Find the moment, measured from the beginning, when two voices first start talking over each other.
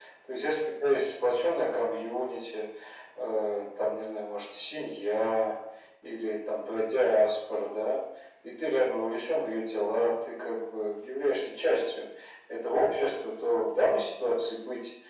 none

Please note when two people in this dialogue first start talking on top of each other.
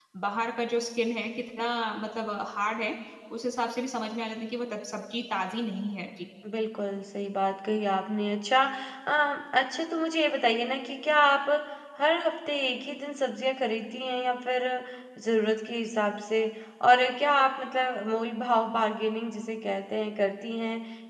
none

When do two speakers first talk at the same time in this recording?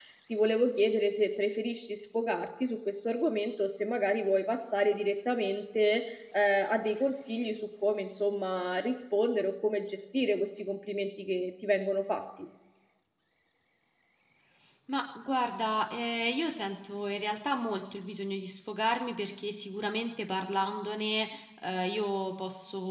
none

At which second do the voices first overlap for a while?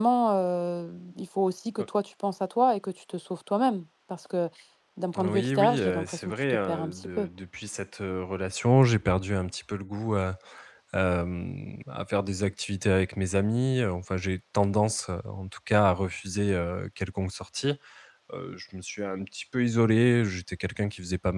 5.2 s

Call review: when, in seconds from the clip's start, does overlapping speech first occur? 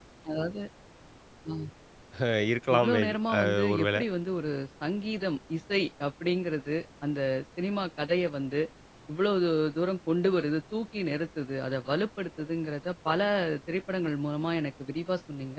2.7 s

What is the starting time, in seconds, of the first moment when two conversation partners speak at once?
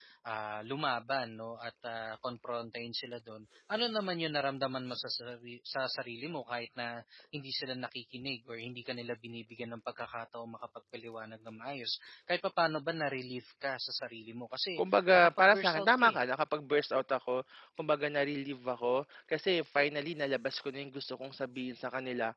14.8 s

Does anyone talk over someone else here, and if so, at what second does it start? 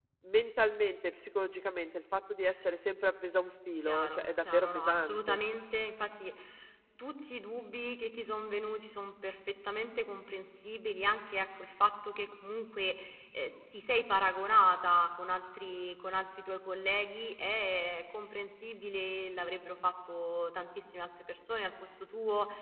3.8 s

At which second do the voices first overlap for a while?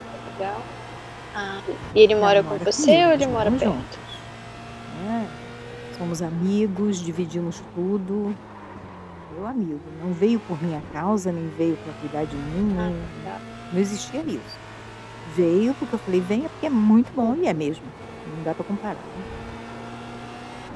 2.2 s

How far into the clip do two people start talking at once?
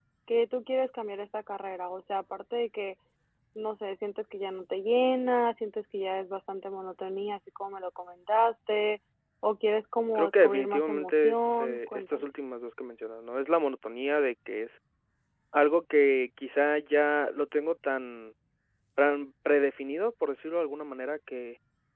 10.2 s

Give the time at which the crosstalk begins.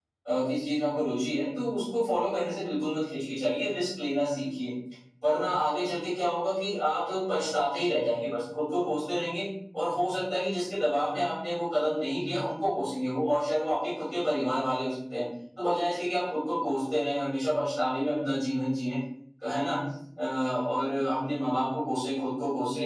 none

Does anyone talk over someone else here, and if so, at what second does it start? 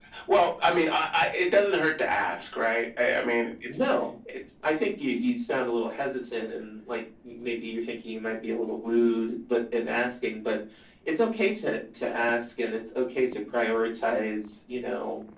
none

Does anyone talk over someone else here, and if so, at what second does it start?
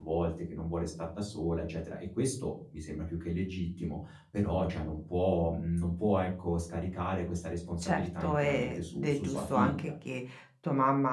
7.8 s

